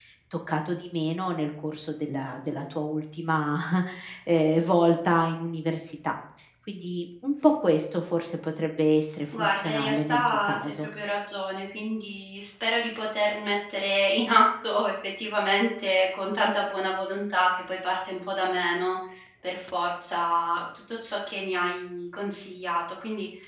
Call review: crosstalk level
present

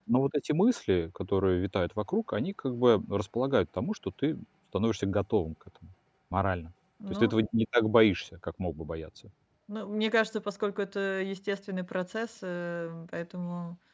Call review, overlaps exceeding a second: none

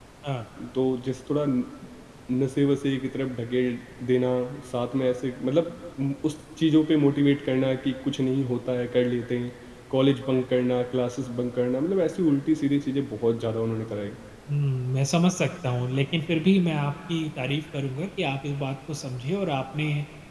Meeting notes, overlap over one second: none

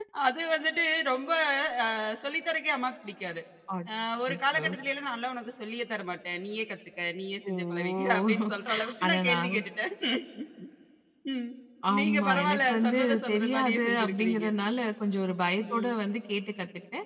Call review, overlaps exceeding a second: present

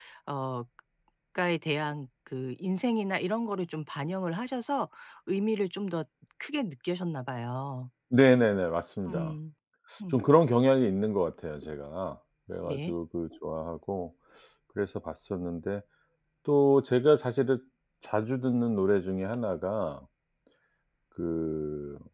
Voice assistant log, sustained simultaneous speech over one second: none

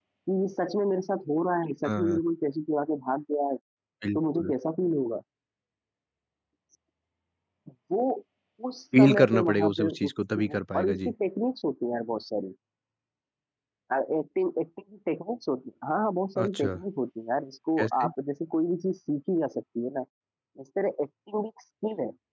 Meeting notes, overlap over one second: present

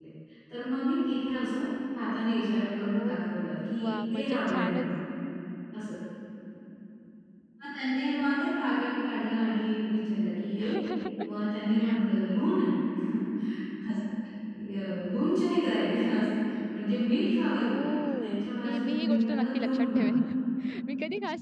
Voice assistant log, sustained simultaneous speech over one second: present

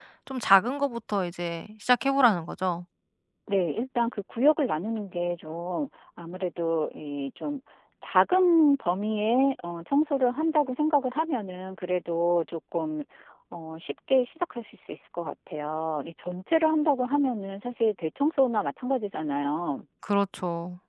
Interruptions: none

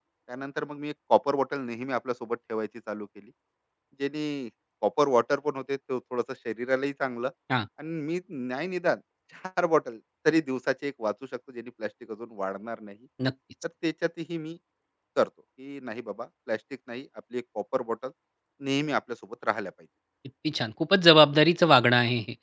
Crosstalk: none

